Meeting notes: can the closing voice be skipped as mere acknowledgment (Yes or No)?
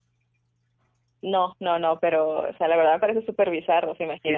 No